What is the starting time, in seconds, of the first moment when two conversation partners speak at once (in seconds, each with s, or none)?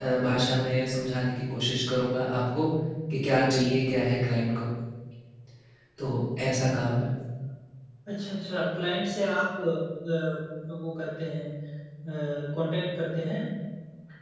none